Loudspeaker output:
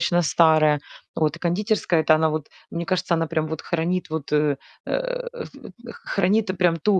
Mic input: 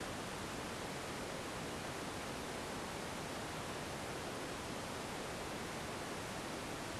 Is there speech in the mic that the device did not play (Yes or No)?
No